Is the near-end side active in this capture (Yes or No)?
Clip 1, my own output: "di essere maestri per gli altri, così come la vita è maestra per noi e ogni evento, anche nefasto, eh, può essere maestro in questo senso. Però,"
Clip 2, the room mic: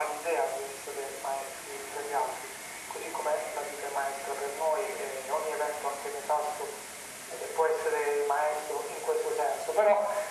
No